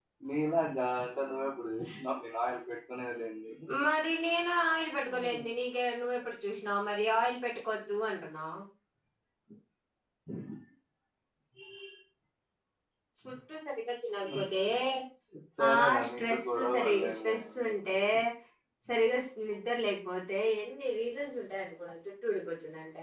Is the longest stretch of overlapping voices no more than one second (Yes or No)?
No